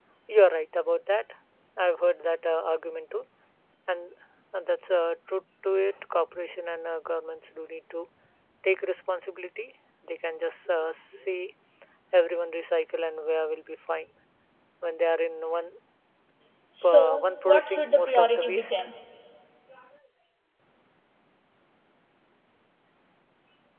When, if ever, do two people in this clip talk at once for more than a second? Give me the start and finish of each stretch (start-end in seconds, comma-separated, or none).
16.8-18.7